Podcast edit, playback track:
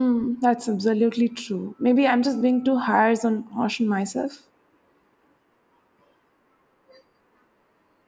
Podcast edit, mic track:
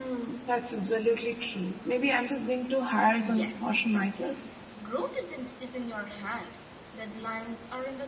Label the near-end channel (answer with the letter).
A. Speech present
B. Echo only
A